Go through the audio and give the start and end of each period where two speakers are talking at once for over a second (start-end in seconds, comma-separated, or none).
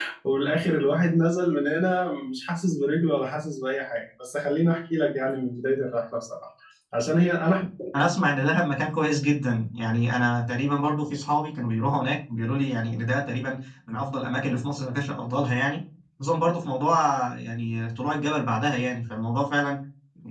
none